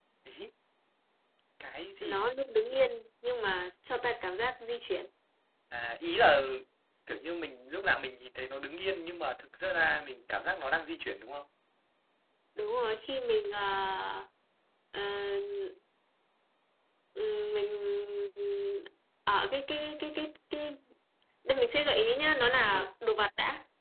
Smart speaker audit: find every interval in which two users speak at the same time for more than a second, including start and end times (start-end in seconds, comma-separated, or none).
none